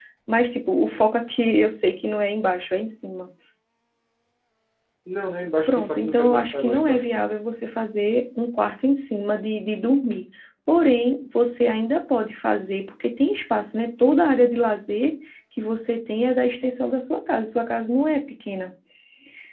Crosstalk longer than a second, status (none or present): present